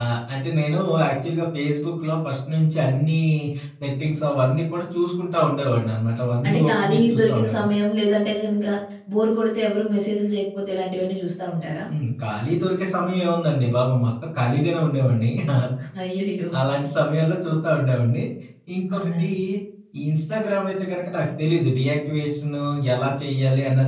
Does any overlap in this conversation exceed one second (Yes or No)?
Yes